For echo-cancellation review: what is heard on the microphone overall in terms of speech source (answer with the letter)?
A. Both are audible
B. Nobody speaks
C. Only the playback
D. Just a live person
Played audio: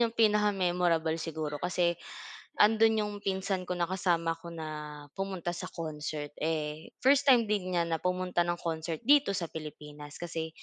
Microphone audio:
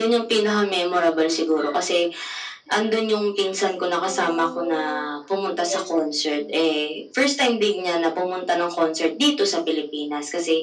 A